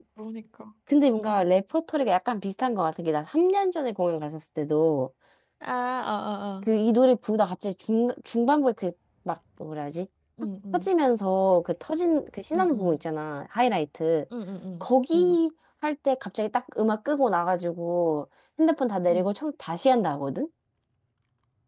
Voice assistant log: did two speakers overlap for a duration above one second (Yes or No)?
No